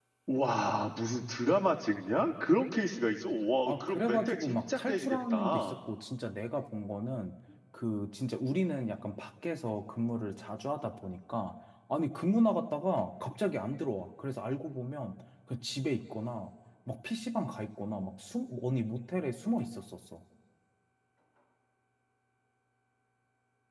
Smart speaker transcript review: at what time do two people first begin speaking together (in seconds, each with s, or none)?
3.7 s